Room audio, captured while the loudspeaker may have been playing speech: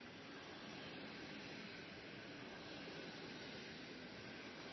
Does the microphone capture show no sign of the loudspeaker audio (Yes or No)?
Yes